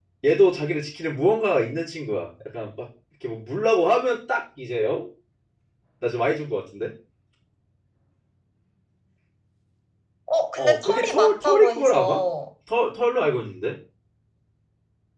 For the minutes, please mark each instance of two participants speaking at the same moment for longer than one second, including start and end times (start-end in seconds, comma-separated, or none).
10.6-12.2